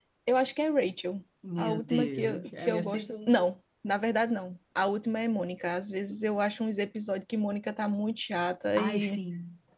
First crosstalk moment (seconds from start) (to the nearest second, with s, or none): 2 s